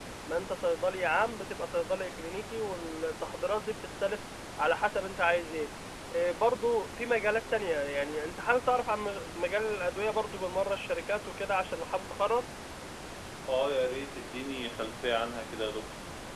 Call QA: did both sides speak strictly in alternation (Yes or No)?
Yes